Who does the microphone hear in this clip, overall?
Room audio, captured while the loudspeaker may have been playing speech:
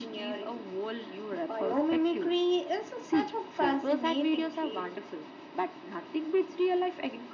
echo only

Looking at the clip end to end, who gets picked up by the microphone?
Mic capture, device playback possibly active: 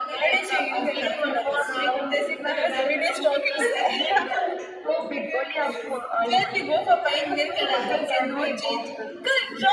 both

